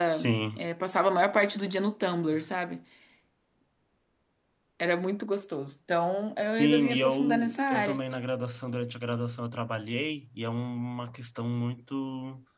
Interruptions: present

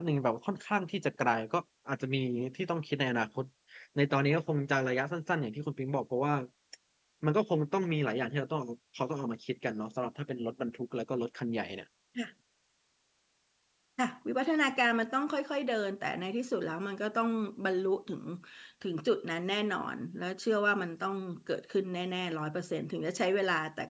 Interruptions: none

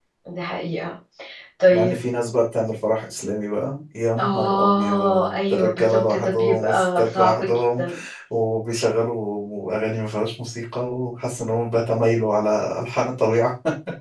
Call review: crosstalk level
present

